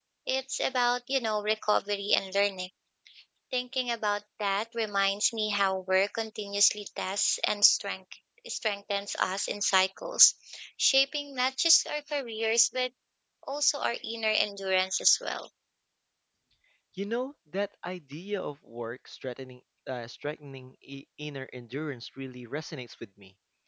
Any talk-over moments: No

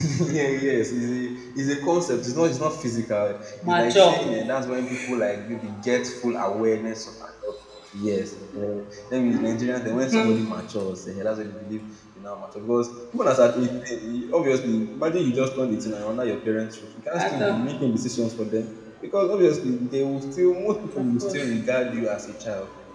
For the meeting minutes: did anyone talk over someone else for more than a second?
No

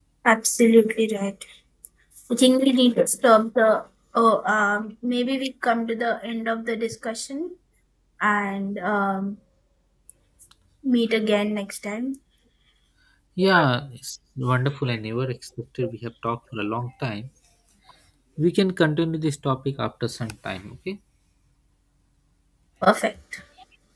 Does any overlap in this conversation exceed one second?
No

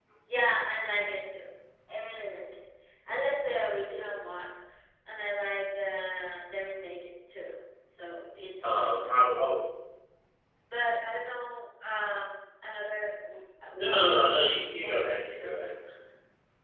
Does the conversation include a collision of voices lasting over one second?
Yes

